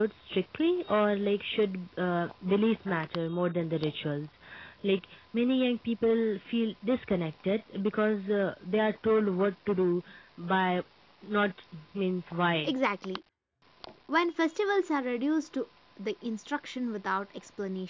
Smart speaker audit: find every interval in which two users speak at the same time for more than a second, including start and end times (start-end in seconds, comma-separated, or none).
none